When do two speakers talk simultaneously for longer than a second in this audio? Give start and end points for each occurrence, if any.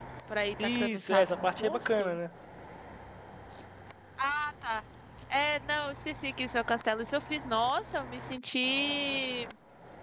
0.6-2.1

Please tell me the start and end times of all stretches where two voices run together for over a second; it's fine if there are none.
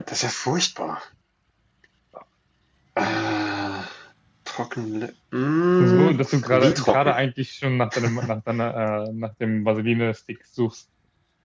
5.8-7.2

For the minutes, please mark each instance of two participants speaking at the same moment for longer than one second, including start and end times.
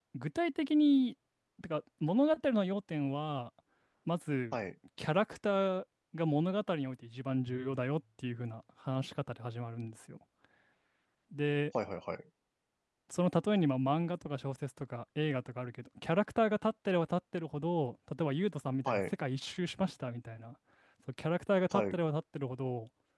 none

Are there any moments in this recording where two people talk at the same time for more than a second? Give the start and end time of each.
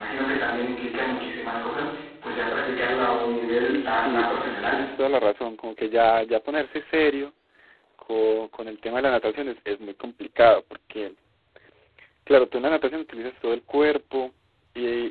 3.5-4.8

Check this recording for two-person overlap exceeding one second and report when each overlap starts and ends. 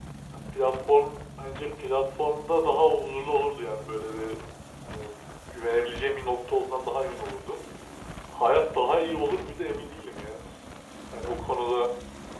none

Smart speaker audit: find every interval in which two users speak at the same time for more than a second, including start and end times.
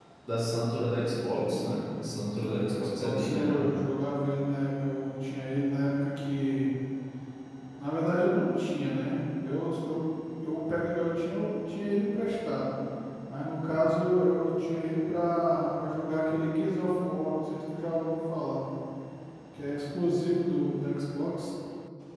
2.4-3.7

